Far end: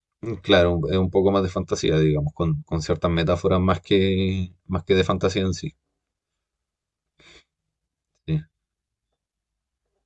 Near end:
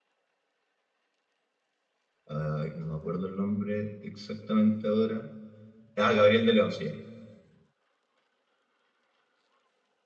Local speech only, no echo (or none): ay, no me acuerdo el nombre exactamente ahora, ah, Gabriel de León se llama.